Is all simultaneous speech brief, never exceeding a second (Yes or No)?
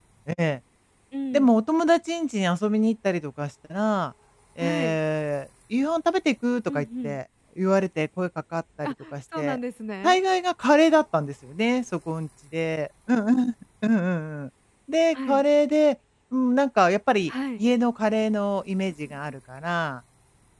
Yes